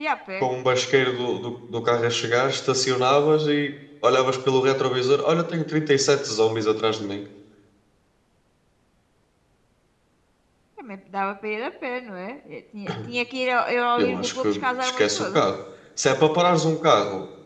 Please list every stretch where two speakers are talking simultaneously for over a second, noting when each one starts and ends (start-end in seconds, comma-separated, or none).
14.0-15.4